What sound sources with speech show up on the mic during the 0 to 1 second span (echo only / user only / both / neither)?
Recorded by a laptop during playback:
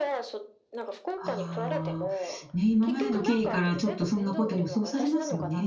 echo only